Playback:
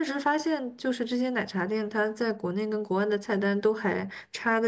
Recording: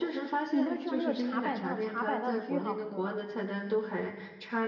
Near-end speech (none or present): present